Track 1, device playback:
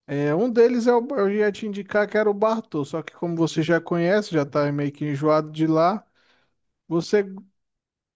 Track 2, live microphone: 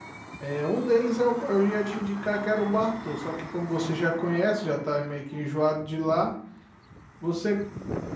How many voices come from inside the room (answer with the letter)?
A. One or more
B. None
B